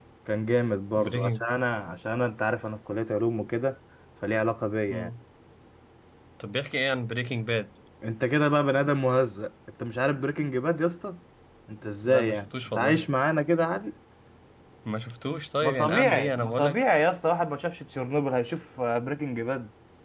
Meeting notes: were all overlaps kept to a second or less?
No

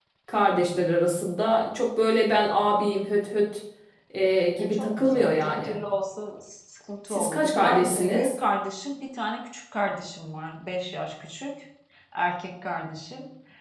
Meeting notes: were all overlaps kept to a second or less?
No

